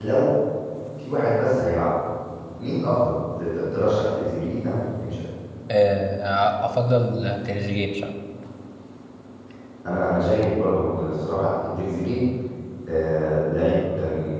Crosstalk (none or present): none